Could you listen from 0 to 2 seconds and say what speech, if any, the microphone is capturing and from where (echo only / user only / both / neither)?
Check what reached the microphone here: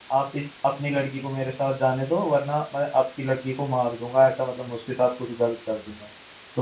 user only